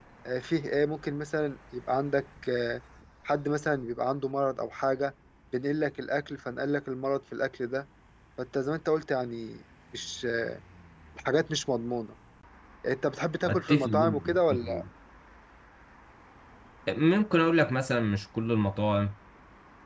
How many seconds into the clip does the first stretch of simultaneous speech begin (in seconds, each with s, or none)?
13.5 s